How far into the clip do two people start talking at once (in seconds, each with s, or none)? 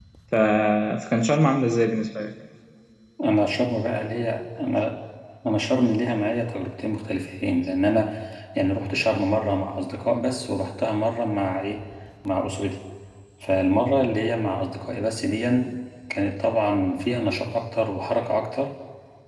none